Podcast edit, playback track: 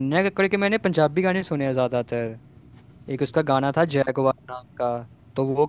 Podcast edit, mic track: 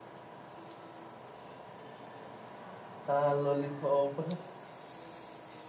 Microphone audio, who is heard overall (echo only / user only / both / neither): user only